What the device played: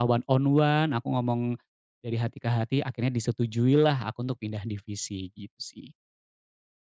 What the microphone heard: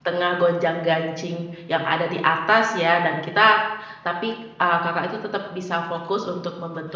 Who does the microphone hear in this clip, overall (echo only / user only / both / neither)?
user only